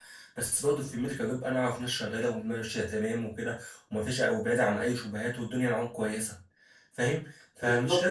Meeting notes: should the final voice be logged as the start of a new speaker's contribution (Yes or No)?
Yes